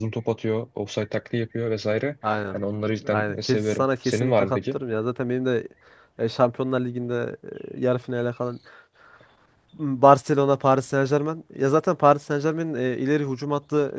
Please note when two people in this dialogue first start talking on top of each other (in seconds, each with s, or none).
3.1 s